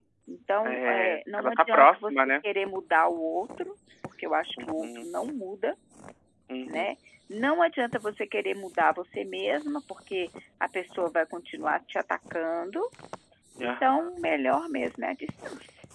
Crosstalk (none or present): present